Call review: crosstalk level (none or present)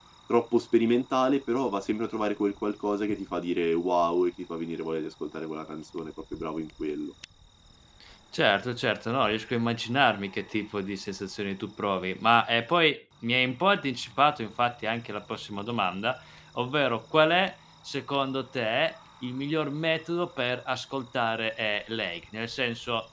none